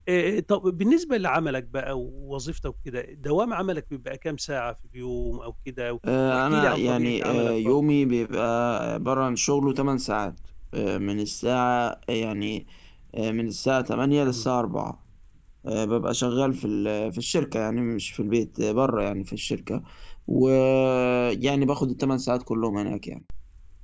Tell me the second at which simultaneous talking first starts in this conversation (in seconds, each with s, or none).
6.3 s